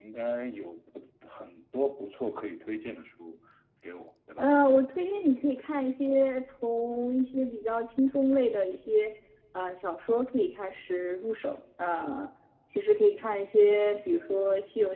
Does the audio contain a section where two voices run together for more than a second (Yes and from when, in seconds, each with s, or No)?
No